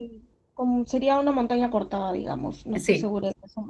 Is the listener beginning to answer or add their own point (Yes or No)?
No